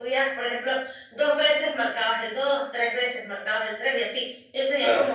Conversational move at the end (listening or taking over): listening